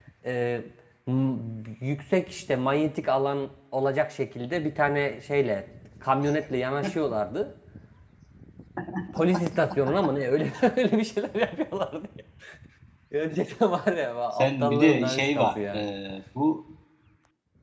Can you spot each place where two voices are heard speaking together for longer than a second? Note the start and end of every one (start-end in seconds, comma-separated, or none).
14.4-15.8